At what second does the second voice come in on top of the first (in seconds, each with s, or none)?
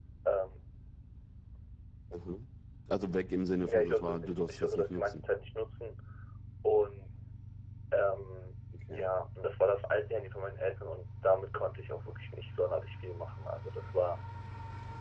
3.7 s